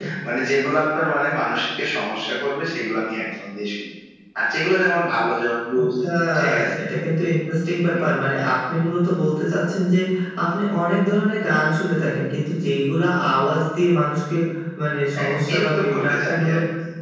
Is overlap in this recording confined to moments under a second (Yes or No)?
No